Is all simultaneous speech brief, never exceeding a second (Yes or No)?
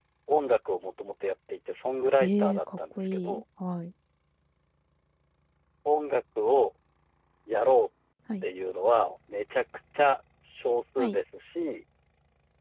No